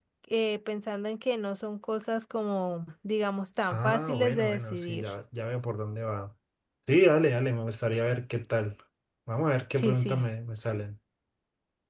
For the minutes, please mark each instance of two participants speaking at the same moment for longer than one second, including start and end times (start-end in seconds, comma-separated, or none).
3.7-5.1